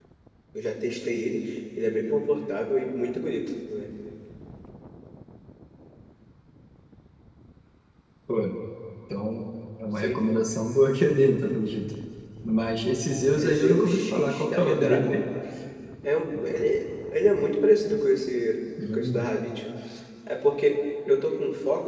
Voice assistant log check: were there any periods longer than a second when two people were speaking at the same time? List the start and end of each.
13.3-15.2

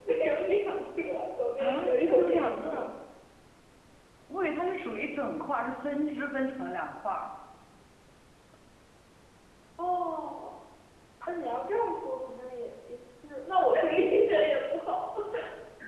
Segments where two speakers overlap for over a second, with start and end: 1.6-2.9

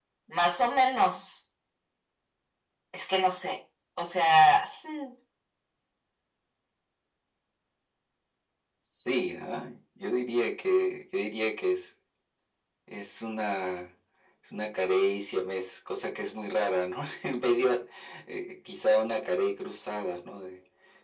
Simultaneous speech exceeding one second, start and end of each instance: none

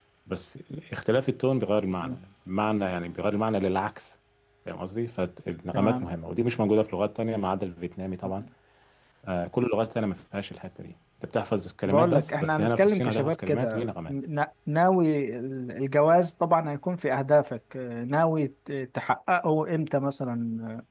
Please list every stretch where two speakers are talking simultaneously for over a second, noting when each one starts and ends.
11.8-14.2

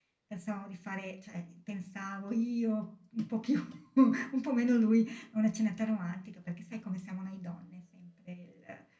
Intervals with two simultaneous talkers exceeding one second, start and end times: none

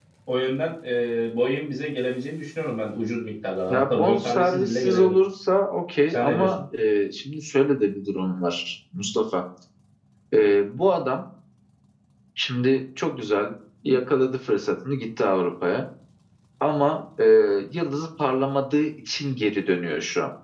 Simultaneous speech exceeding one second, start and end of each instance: 3.7-5.1

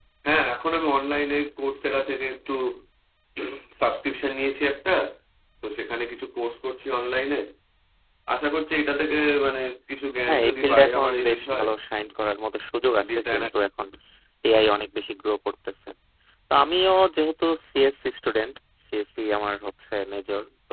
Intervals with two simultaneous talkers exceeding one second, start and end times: 10.2-11.7

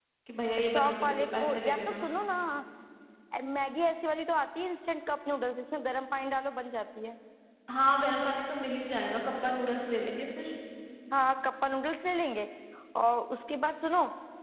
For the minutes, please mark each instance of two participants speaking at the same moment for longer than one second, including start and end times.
0.6-2.0

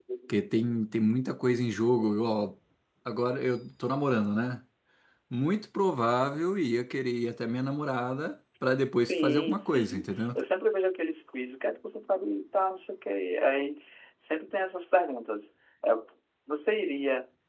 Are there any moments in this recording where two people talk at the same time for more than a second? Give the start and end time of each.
9.1-10.4

